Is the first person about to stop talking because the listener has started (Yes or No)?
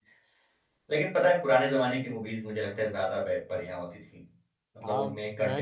Yes